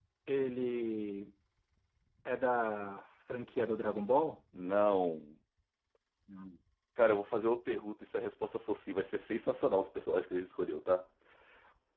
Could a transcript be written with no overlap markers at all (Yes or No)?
Yes